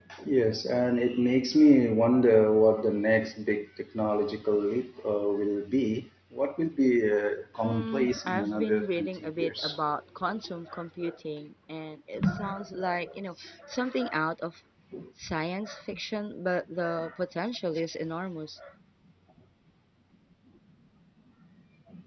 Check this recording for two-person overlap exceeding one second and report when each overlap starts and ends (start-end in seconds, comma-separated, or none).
7.6-9.8